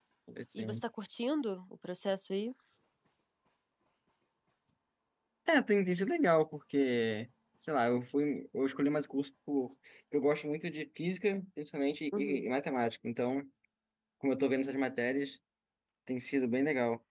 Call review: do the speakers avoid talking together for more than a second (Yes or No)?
Yes